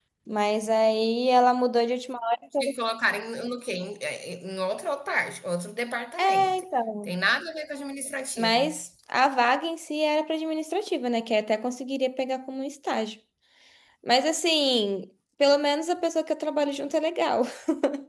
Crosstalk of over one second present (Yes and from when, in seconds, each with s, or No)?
No